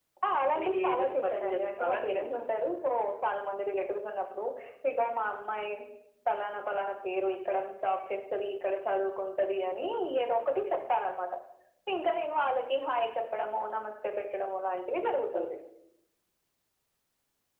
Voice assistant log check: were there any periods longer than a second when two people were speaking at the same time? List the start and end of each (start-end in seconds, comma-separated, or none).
0.5-2.4